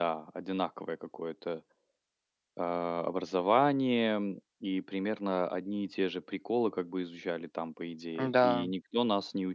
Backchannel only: Yes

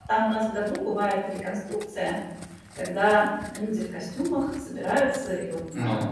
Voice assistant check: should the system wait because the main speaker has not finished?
Yes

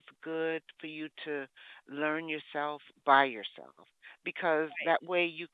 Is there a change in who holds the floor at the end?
No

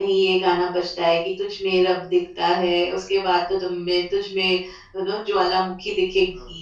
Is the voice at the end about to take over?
Yes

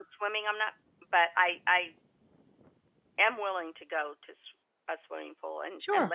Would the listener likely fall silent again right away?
No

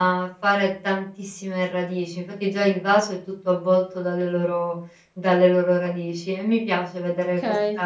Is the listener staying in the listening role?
Yes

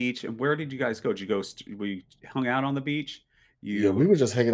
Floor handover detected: Yes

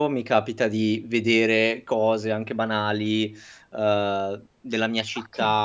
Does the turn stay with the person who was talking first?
Yes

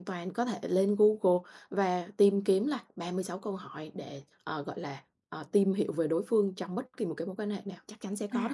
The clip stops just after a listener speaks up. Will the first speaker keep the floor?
No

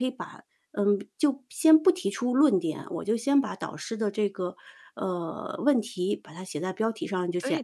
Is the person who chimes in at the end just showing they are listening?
Yes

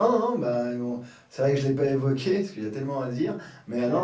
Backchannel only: Yes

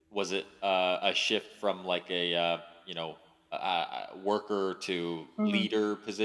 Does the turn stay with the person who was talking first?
No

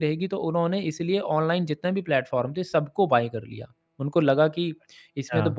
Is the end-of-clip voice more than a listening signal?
No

